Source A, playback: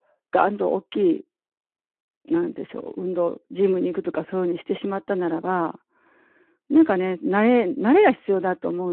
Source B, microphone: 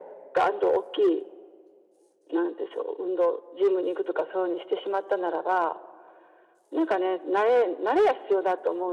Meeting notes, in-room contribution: none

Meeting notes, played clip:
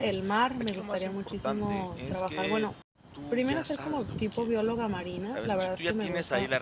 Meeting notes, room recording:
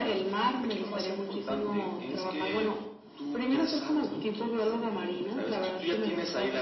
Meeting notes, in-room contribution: none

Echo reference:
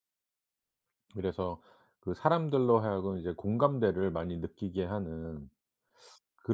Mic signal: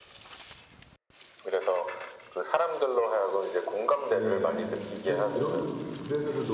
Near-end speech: present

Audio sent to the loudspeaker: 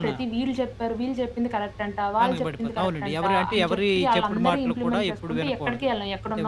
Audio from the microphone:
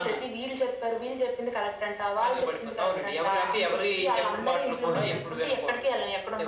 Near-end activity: present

